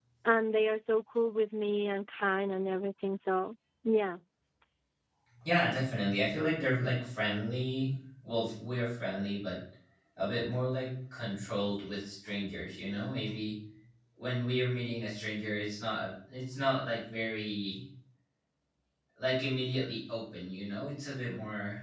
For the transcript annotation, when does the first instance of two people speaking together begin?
none

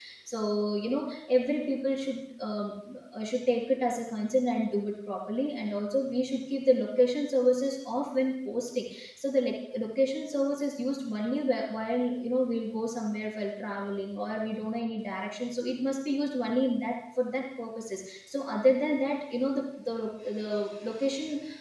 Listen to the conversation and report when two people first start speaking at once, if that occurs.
none

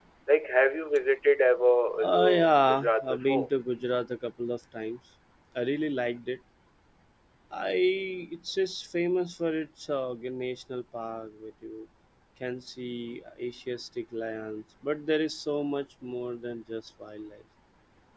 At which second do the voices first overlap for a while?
1.9 s

